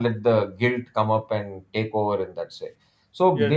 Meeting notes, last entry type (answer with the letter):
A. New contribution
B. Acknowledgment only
B